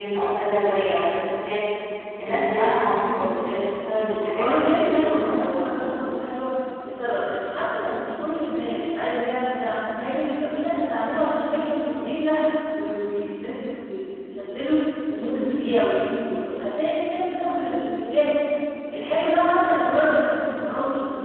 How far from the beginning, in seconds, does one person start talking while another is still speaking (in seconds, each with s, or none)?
4.3 s